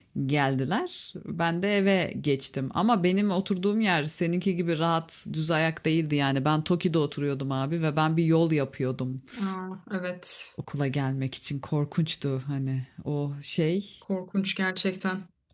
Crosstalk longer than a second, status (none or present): none